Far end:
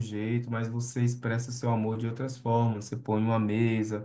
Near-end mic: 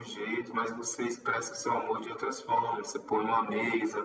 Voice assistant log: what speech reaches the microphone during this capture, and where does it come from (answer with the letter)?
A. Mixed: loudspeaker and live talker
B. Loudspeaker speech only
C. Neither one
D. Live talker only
B